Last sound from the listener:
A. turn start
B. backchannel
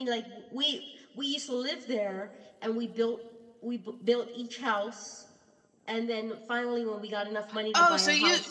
A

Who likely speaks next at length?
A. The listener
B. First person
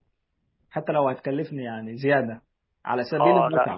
A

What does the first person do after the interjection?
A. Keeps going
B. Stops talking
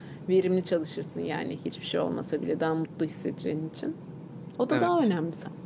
A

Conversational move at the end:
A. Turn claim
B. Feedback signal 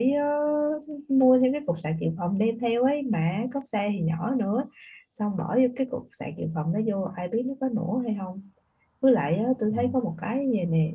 B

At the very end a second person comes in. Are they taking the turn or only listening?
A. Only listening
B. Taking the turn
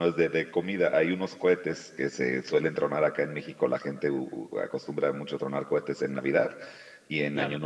A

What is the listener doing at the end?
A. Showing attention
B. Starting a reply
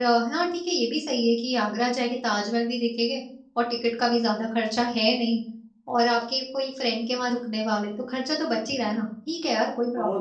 B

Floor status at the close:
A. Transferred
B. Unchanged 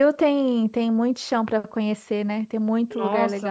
A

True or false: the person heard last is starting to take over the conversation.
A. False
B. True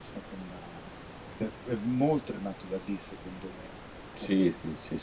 B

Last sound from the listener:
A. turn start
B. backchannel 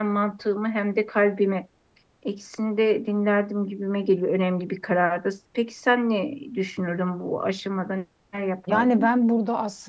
A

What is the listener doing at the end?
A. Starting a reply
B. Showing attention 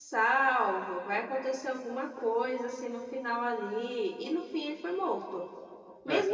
B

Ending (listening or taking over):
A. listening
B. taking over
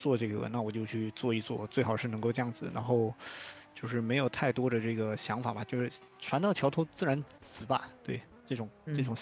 B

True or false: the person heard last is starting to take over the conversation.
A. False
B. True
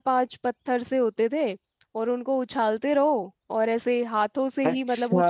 B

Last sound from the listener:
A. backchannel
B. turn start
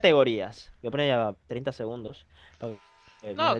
B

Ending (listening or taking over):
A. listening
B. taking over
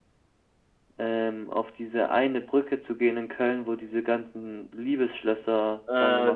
B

